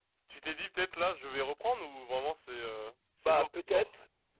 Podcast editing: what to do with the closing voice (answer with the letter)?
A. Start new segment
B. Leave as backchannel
A